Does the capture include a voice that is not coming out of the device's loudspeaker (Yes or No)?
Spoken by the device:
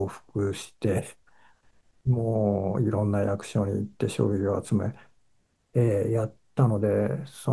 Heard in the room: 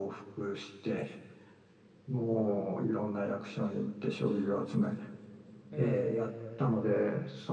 Yes